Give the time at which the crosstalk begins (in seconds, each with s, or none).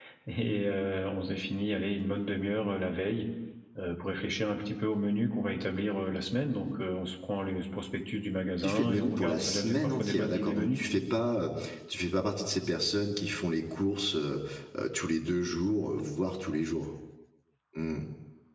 8.6 s